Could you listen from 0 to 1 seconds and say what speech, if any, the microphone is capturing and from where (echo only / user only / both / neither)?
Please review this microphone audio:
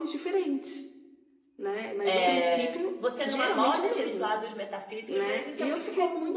echo only